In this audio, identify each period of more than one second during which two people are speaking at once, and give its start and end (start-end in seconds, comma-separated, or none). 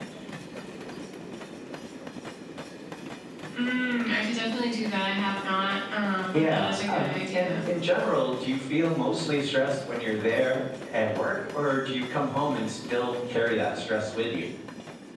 6.3-7.6